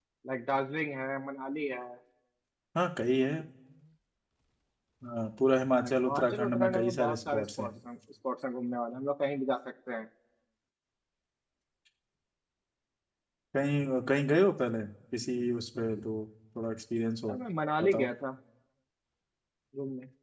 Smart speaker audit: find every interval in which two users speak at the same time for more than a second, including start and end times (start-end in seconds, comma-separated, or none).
5.8-7.7